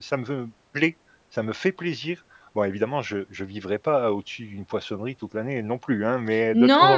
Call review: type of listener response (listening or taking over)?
taking over